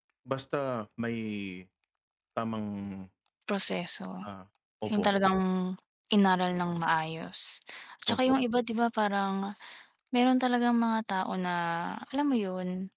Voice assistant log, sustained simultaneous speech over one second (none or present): none